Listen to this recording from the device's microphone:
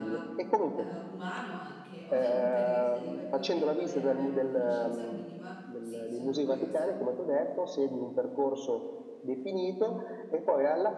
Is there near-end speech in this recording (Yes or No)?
Yes